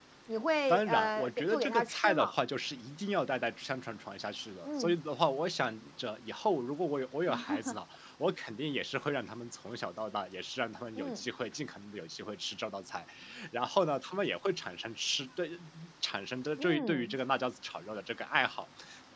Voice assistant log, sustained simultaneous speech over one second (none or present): present